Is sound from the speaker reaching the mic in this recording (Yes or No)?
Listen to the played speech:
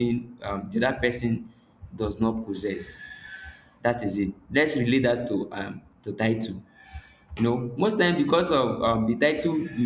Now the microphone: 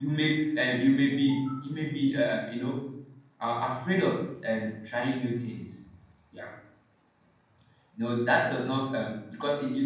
No